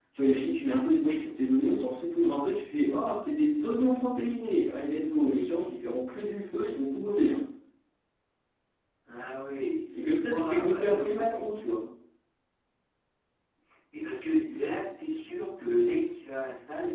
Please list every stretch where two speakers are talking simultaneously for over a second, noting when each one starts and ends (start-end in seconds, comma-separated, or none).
10.2-11.5